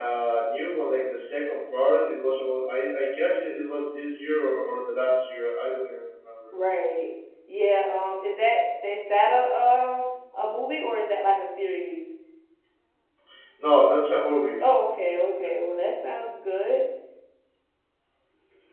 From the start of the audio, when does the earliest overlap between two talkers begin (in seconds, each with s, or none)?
none